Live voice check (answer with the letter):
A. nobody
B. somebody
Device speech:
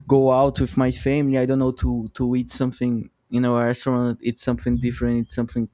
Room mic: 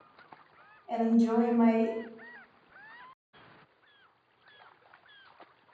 B